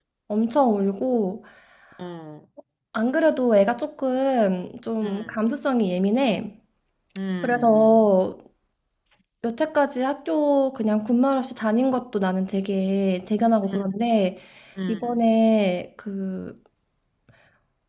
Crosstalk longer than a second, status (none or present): none